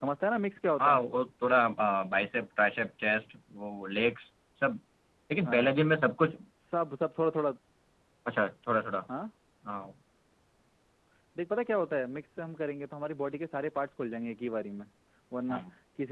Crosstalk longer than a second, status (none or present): none